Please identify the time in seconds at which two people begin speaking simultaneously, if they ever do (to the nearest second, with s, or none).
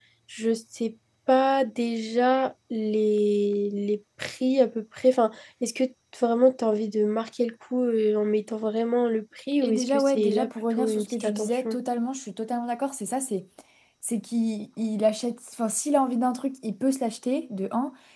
10 s